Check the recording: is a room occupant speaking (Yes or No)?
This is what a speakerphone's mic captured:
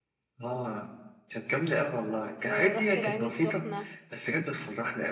Yes